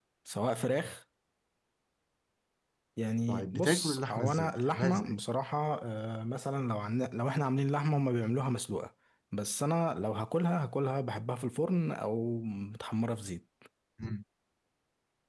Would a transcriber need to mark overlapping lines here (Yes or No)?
Yes